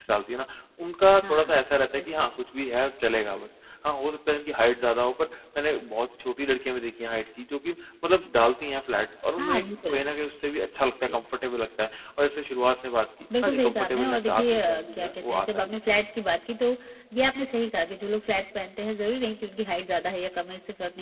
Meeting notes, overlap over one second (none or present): present